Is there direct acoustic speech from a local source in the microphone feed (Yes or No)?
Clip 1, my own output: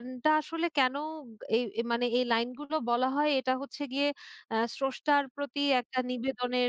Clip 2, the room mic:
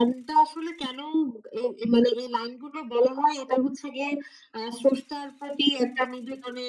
No